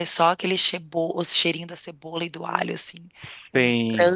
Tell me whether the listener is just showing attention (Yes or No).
No